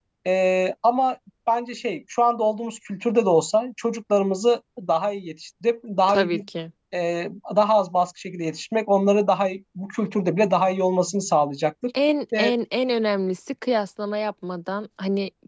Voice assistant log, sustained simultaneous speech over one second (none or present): none